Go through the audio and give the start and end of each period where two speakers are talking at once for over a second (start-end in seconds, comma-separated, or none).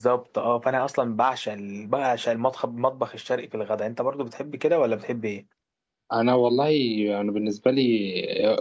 none